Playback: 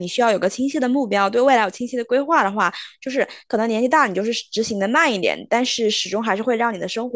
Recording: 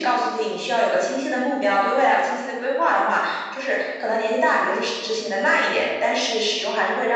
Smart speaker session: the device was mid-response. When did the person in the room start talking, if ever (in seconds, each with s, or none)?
none